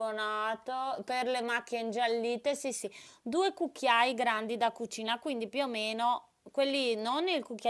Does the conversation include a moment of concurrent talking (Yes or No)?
No